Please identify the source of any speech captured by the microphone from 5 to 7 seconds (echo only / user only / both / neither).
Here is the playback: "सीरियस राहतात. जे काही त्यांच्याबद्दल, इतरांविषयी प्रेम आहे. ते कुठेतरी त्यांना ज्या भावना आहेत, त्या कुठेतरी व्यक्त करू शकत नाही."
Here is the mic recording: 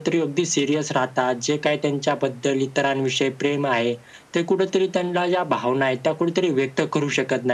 echo only